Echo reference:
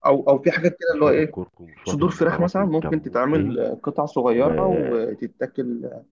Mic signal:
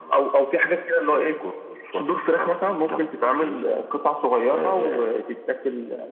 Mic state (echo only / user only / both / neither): echo only